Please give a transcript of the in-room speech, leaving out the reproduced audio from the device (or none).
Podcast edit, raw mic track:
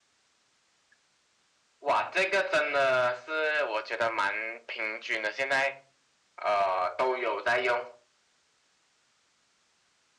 none